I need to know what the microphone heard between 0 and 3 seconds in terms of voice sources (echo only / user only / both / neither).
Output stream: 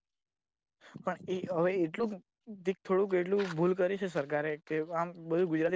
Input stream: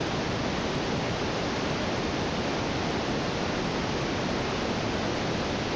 neither